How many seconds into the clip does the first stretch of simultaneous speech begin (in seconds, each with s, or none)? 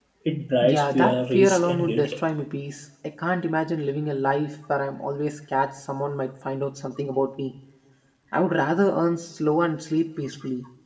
0.6 s